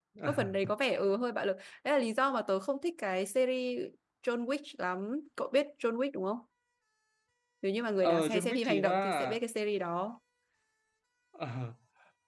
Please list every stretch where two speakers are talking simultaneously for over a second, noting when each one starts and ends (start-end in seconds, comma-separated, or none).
8.0-9.3